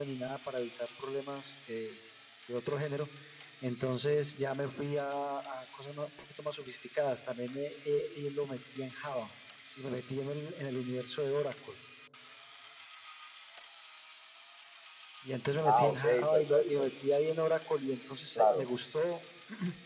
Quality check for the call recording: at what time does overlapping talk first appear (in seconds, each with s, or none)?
15.7 s